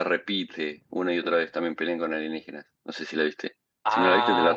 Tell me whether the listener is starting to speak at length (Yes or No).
Yes